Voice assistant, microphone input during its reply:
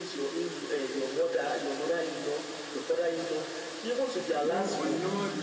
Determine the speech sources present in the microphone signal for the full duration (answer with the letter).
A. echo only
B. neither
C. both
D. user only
C